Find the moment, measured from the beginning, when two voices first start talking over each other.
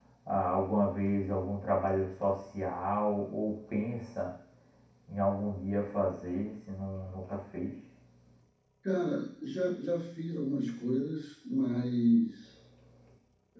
none

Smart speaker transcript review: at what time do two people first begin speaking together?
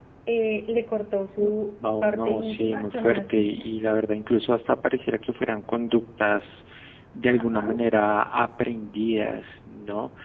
2.0 s

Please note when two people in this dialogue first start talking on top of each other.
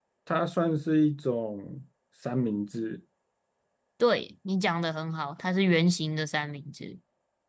none

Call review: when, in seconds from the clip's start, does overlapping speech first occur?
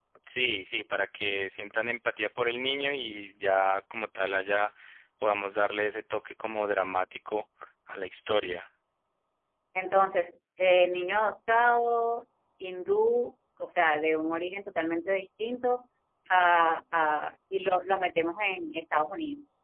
none

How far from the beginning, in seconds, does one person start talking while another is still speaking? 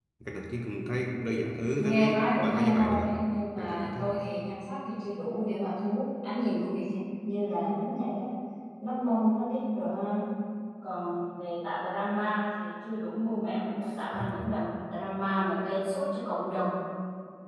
1.8 s

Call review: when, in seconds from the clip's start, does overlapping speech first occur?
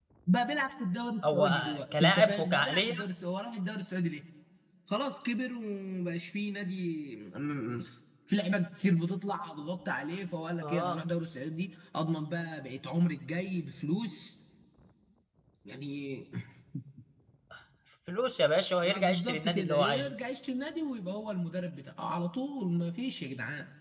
1.2 s

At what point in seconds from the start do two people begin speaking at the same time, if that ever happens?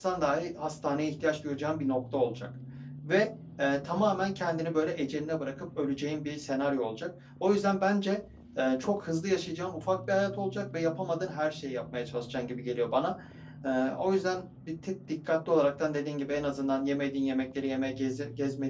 none

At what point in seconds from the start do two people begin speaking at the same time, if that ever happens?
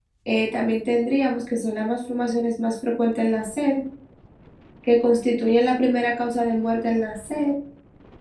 none

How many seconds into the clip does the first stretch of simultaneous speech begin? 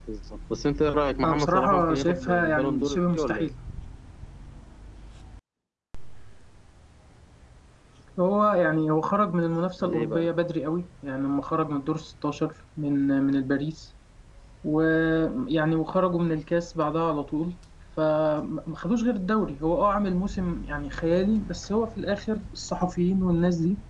1.2 s

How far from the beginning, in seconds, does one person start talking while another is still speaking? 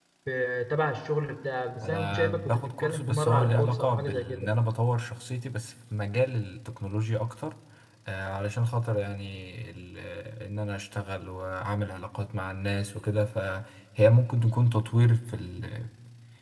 1.8 s

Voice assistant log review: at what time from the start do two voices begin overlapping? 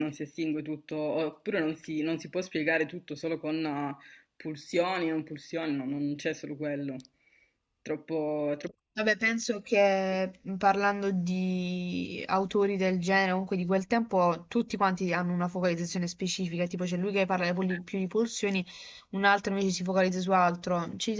none

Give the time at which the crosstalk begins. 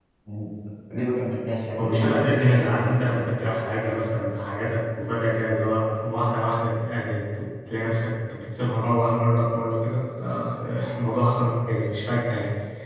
1.8 s

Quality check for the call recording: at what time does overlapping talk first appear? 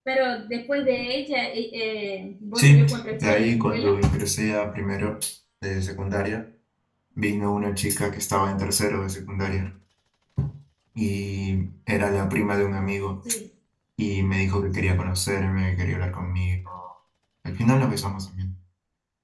2.6 s

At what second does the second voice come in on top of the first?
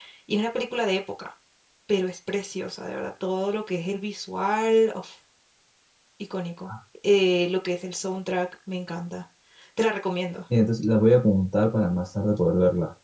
none

